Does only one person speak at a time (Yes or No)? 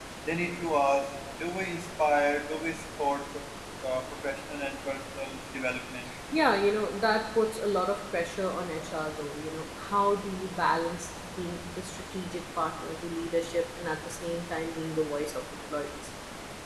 Yes